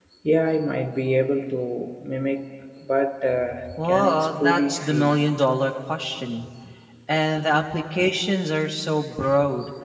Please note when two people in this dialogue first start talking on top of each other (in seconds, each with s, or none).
3.6 s